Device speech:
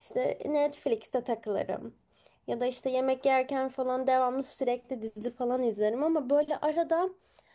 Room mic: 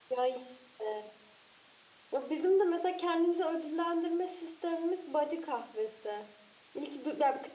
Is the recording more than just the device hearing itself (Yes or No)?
Yes